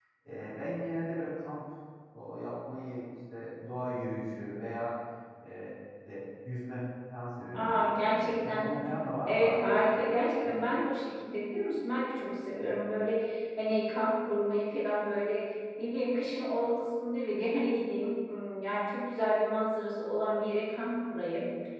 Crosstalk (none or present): present